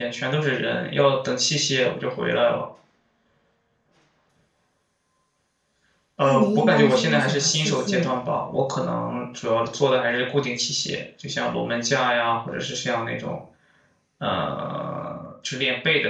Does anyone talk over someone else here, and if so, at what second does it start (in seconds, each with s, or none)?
6.2 s